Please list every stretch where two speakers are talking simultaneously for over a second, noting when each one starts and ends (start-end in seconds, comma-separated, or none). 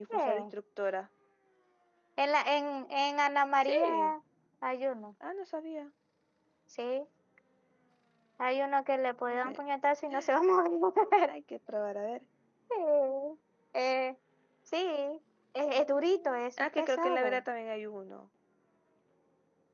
15.8-17.4